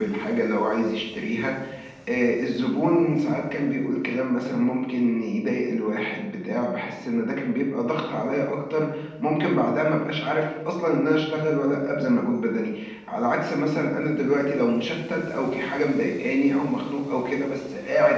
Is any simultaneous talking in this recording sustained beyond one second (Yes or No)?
No